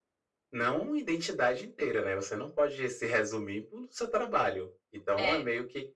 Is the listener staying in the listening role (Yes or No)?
Yes